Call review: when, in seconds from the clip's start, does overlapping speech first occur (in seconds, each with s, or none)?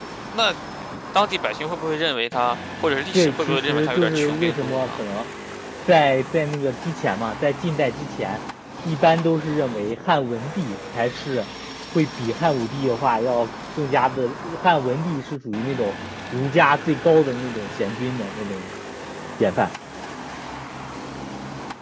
3.1 s